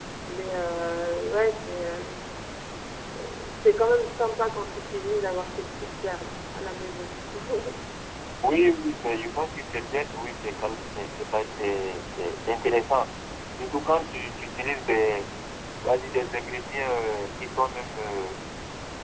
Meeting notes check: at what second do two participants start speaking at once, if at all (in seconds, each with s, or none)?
none